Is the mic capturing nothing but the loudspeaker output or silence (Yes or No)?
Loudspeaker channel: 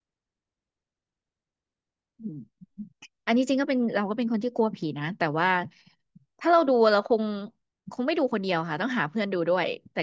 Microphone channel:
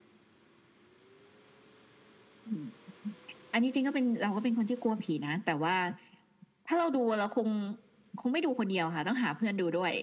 Yes